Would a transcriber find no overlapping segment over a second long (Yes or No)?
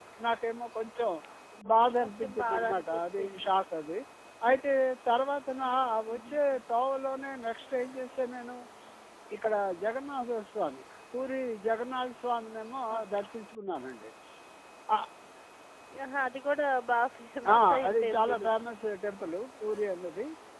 No